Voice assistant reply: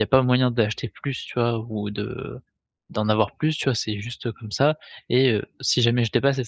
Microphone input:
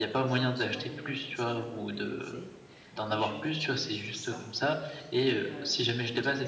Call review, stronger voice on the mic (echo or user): echo